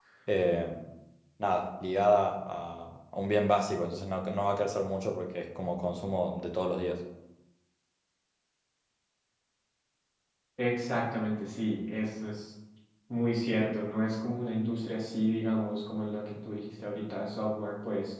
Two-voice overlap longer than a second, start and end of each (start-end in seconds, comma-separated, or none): none